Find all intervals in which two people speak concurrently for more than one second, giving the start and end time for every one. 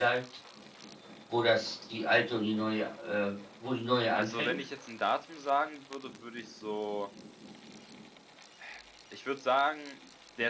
none

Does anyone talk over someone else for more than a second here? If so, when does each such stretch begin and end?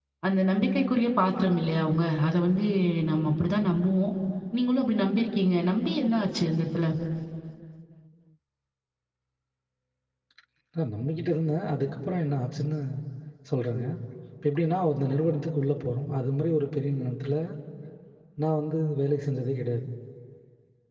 none

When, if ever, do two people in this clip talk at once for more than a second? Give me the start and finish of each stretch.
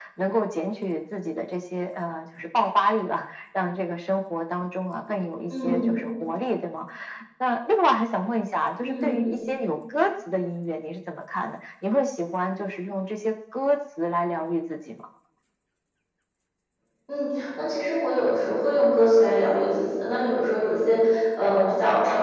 none

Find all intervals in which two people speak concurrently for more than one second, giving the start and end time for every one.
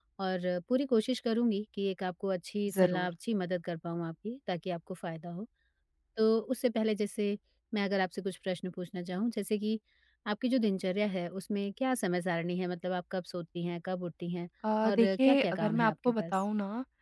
14.8-16.4

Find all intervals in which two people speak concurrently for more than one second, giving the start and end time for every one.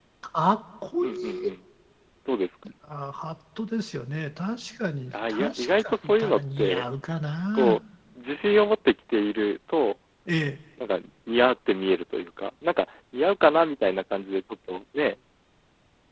5.3-6.9

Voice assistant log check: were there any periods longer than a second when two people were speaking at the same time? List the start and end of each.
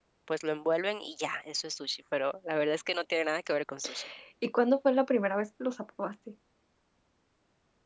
none

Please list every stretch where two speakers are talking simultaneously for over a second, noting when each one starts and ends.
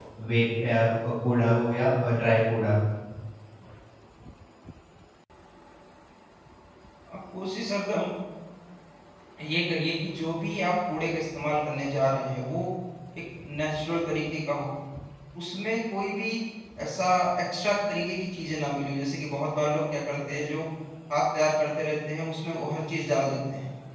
none

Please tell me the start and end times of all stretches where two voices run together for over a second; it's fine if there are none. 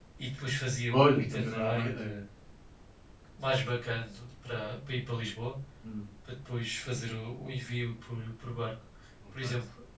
0.9-2.1

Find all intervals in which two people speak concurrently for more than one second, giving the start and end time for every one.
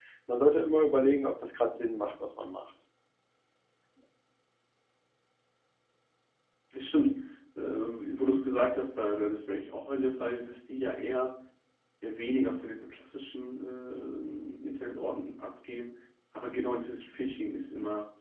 none

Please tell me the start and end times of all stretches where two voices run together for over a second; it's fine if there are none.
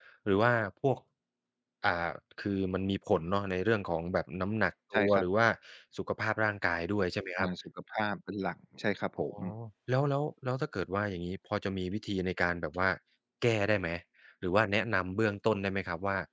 none

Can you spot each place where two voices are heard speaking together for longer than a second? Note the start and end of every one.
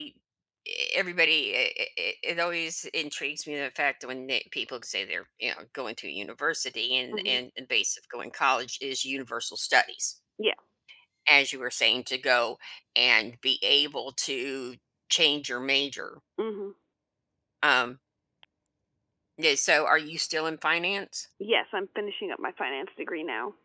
none

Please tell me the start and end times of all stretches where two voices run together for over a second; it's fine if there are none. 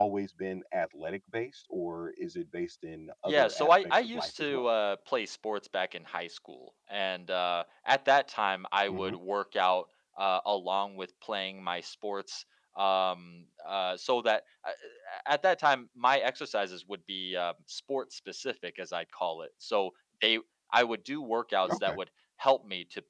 3.3-4.6

